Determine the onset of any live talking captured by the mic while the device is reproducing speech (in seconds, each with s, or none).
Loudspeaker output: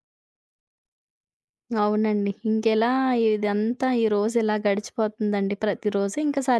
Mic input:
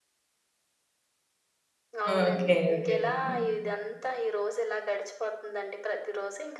2.1 s